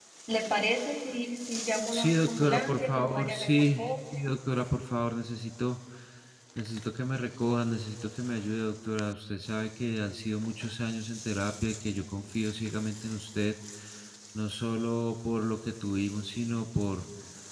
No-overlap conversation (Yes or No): No